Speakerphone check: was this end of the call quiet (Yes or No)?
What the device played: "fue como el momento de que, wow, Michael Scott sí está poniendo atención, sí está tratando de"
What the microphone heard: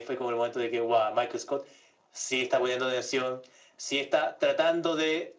Yes